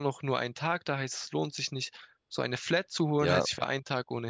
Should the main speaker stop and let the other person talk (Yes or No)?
No